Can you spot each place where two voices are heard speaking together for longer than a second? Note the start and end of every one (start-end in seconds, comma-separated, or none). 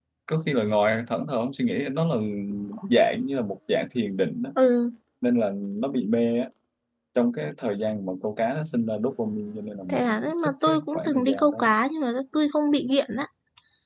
9.9-11.7